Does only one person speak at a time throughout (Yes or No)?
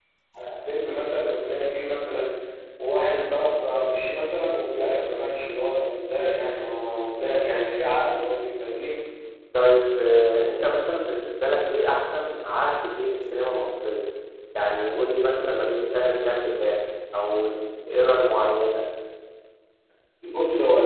Yes